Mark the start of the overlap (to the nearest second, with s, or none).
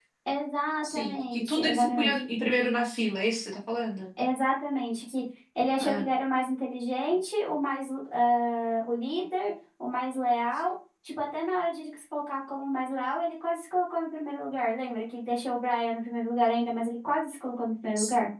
1 s